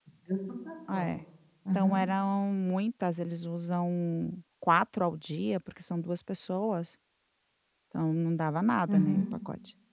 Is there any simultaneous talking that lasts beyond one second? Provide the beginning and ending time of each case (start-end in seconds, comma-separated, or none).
none